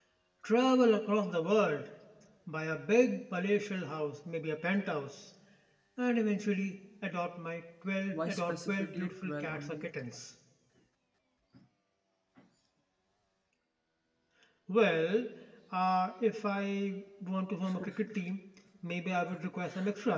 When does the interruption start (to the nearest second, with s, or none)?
8 s